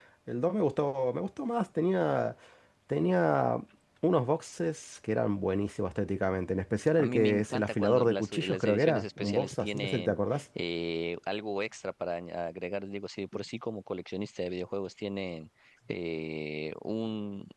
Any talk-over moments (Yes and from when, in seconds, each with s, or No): Yes, from 7.0 s